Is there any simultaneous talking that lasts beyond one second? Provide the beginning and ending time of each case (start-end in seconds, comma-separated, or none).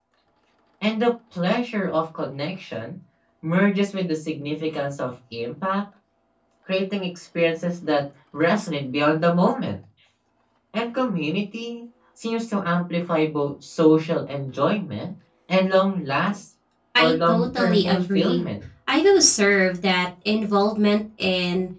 17.0-18.4